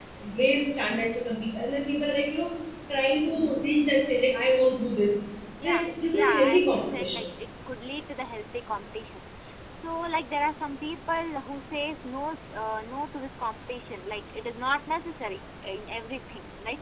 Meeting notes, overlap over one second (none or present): present